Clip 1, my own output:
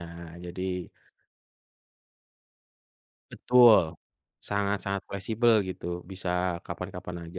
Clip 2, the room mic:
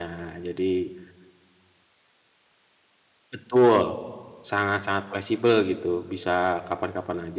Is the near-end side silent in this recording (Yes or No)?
Yes